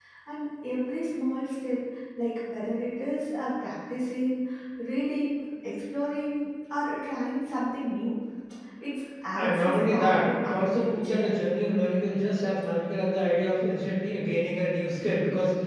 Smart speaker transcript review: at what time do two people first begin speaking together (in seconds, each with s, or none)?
9.3 s